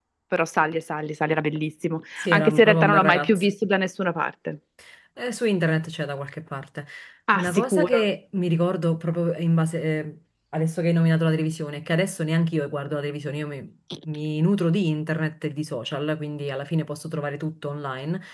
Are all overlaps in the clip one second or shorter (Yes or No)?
No